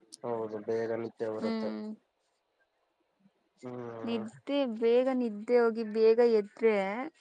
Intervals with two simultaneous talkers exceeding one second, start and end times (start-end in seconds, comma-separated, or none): none